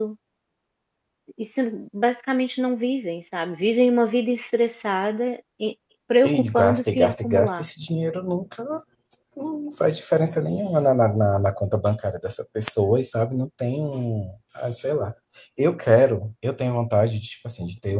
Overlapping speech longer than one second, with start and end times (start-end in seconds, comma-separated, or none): 6.2-7.6